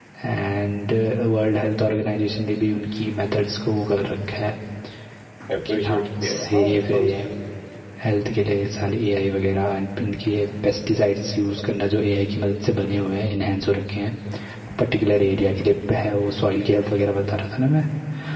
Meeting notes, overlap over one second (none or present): present